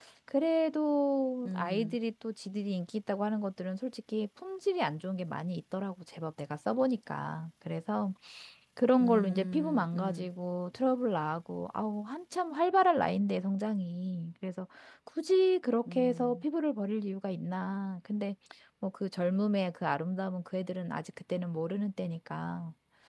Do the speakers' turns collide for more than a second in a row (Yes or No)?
Yes